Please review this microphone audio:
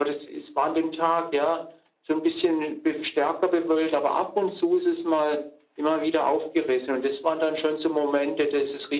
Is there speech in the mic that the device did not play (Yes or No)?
No